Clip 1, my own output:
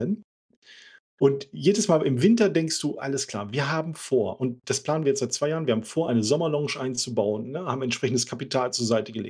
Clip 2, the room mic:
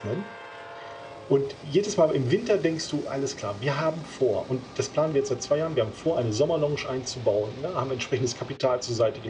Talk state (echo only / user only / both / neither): echo only